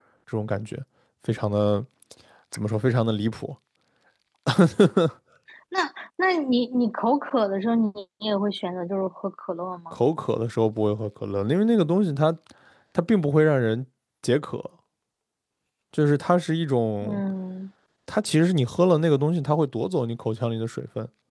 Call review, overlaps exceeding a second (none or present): none